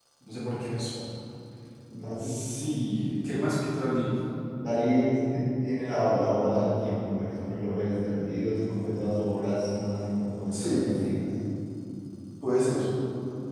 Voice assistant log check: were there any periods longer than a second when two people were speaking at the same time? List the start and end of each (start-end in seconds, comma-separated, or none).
none